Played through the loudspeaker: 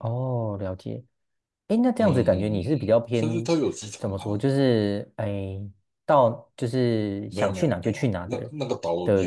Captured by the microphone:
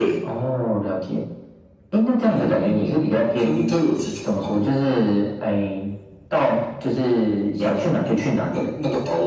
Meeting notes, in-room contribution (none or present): none